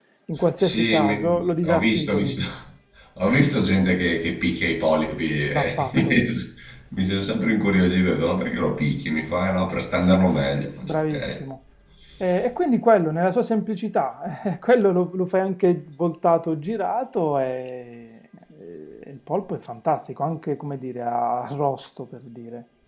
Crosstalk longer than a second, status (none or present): present